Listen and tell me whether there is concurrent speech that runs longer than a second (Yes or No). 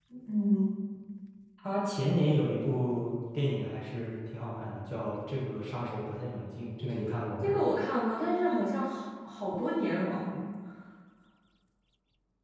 No